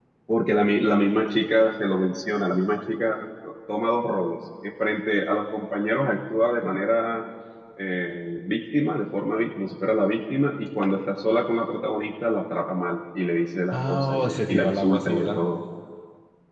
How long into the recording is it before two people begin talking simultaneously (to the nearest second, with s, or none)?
14 s